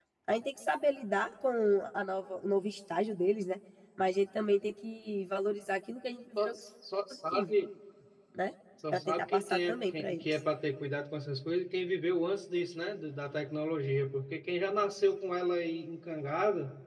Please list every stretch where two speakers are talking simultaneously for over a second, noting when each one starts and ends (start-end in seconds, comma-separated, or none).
8.9-10.3